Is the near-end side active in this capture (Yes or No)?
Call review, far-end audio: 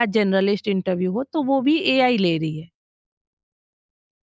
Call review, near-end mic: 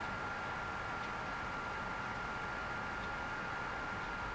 No